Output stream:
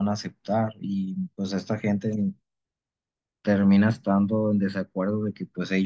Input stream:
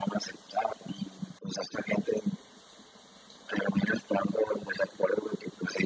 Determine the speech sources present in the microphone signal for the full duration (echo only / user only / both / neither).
echo only